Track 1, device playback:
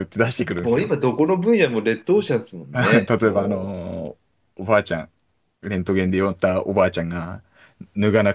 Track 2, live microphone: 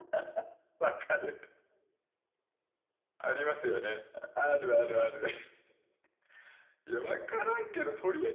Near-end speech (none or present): present